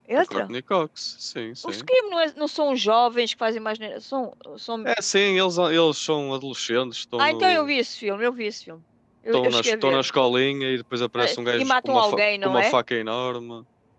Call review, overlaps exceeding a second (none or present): present